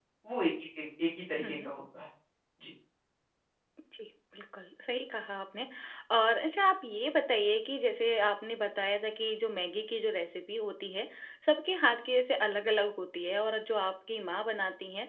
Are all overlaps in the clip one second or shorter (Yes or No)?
Yes